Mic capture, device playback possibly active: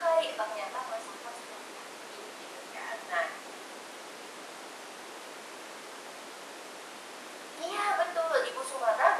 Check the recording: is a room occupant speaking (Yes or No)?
No